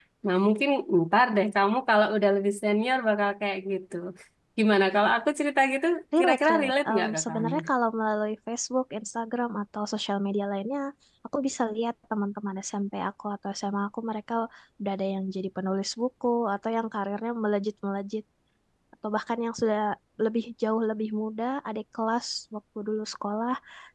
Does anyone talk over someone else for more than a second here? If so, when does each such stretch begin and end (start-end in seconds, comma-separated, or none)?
6.2-7.5